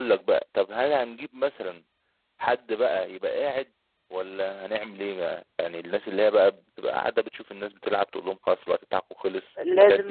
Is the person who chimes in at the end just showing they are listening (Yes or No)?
No